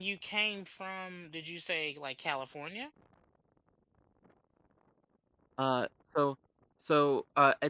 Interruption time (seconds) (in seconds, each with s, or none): none